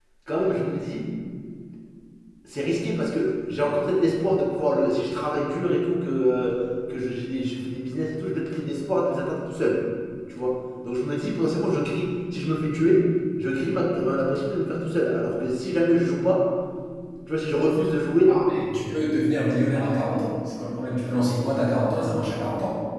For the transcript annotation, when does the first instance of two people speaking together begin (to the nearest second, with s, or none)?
none